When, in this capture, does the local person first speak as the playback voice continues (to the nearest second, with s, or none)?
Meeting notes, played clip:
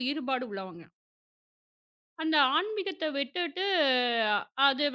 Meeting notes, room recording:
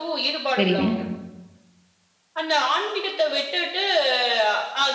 1 s